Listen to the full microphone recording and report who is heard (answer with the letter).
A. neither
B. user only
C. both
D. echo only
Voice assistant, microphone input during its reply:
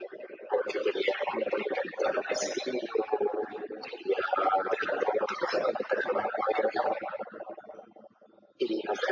D